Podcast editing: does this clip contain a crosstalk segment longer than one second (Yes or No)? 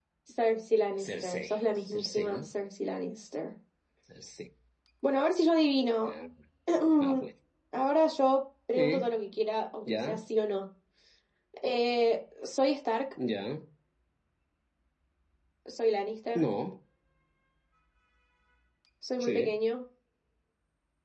Yes